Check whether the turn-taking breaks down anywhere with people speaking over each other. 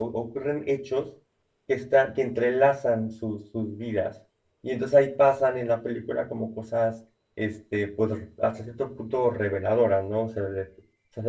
No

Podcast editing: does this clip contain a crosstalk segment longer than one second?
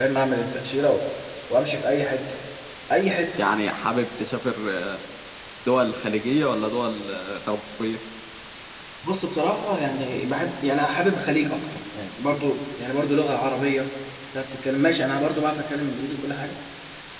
No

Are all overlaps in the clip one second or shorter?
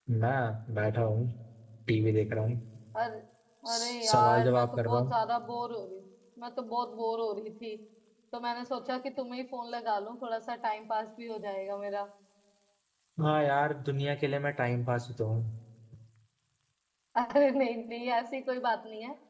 No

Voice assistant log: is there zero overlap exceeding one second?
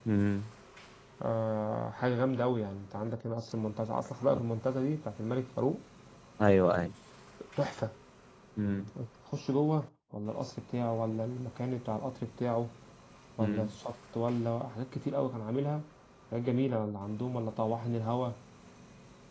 Yes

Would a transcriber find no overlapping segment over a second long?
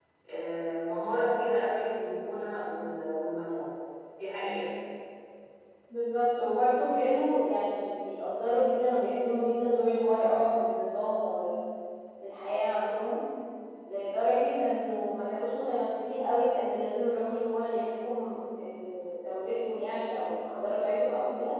Yes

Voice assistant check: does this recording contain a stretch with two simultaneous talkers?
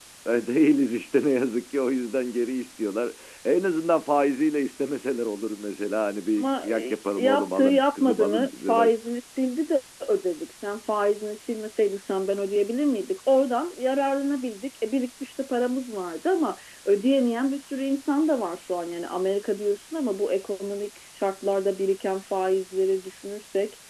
Yes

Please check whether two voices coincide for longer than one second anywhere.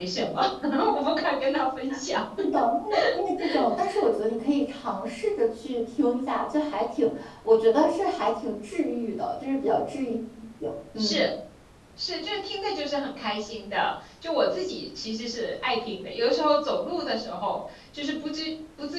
No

